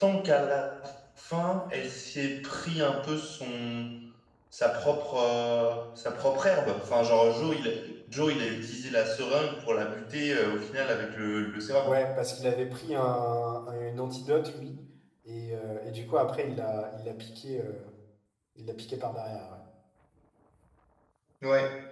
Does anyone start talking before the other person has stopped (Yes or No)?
No